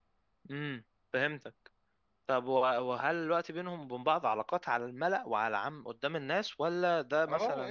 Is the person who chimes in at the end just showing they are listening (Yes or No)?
No